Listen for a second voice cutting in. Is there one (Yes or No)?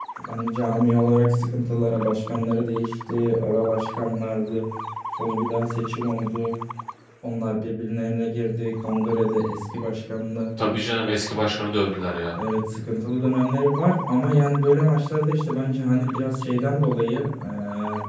No